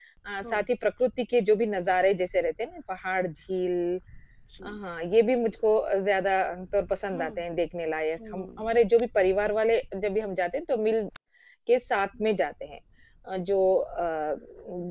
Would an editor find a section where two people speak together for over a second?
No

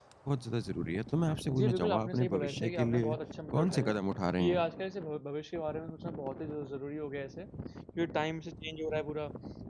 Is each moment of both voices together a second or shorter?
No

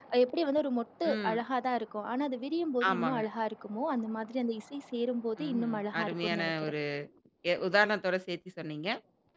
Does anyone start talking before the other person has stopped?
Yes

